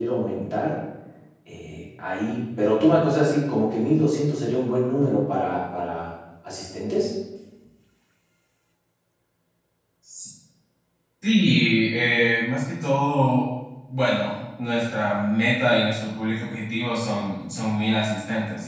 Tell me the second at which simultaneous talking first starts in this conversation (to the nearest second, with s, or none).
none